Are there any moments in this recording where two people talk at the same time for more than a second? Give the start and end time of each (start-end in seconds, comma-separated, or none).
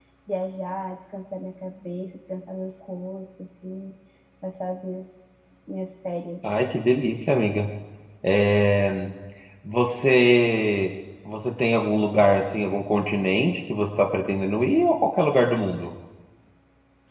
none